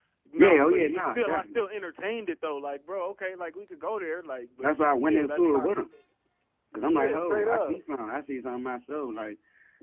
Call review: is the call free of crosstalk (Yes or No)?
No